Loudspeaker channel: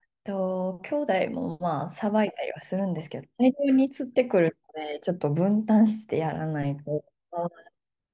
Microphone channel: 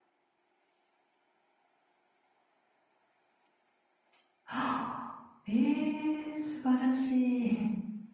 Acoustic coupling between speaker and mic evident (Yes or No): No